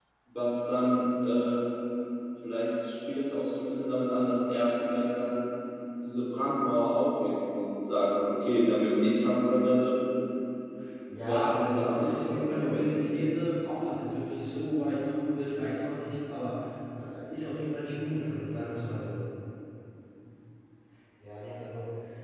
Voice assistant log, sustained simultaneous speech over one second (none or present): present